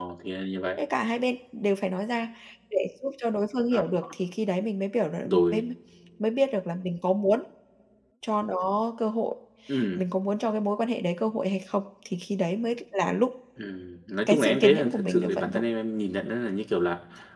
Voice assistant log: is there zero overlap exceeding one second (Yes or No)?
No